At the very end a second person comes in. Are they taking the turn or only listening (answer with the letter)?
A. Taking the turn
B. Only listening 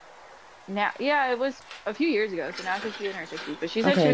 A